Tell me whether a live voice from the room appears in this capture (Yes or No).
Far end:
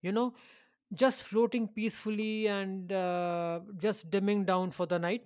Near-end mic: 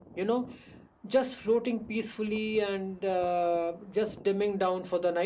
No